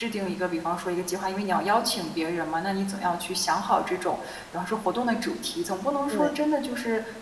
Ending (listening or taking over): listening